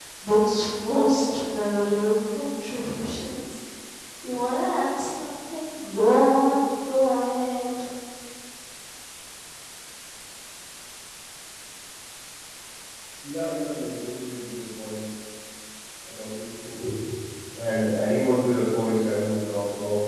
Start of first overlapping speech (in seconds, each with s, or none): none